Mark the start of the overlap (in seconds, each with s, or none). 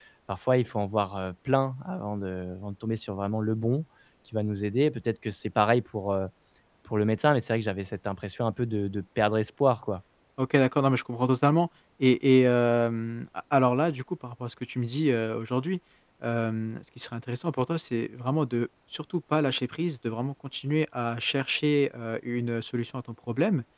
none